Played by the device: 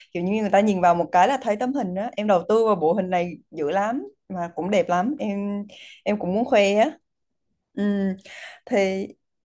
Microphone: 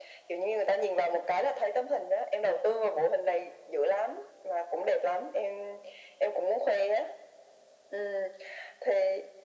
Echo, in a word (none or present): present